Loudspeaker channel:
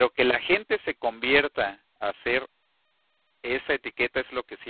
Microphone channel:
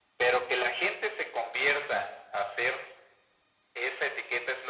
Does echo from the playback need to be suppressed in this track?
Yes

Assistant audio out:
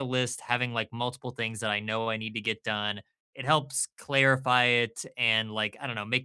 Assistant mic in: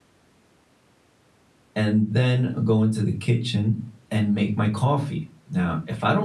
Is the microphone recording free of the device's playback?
Yes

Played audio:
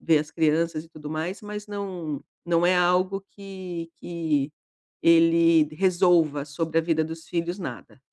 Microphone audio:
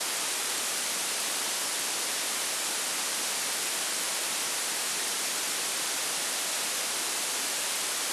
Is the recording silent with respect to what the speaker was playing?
Yes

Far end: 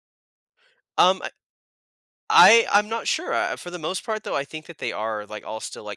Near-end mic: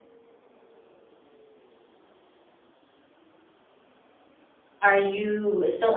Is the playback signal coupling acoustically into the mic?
No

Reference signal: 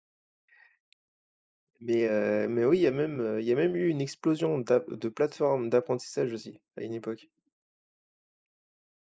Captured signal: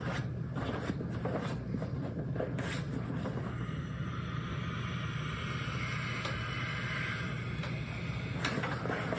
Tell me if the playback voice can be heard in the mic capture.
No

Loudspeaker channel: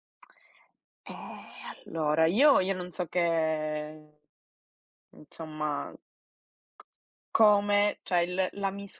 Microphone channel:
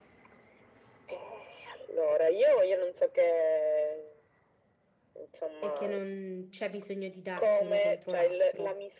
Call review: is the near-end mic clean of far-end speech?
No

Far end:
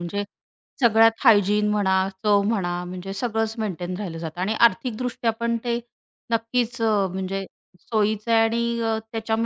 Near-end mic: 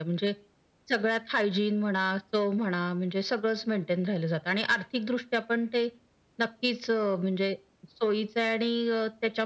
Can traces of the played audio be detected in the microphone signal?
Yes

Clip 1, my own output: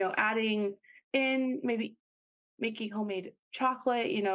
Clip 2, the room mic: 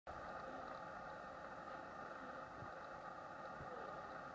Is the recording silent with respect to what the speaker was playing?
Yes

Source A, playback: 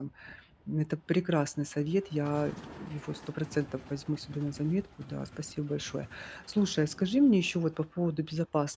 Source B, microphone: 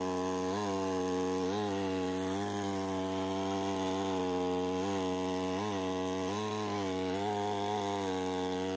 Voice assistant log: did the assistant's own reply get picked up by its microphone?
No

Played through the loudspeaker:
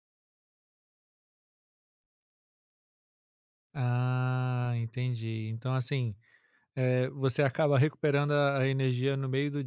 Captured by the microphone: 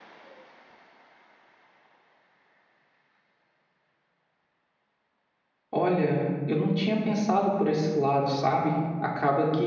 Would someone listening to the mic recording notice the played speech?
No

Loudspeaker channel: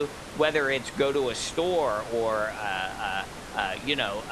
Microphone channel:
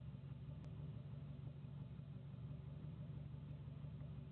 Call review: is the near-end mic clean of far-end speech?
Yes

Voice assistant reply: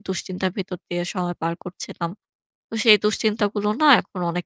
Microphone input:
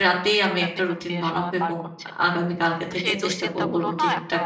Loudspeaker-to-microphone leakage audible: Yes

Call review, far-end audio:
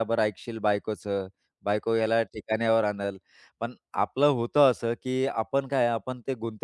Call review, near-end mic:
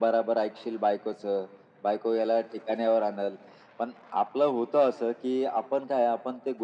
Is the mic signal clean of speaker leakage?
No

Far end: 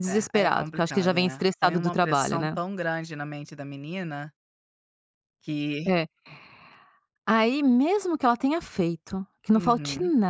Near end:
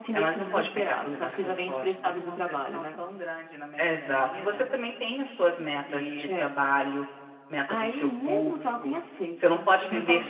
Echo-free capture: No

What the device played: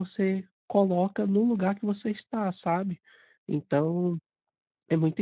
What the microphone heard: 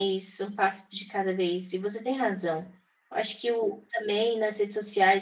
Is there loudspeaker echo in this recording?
No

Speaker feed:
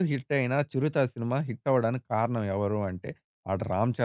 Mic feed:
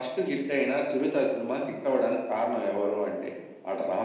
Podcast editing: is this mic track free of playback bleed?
No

